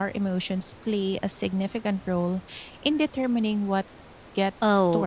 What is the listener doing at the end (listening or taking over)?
taking over